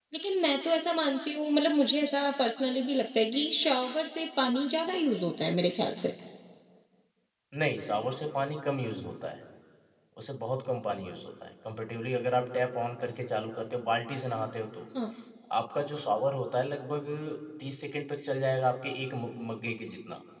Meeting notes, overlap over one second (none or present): none